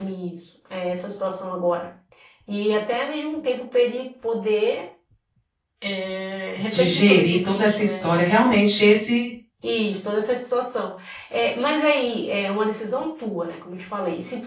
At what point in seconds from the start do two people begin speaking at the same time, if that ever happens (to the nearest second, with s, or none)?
7 s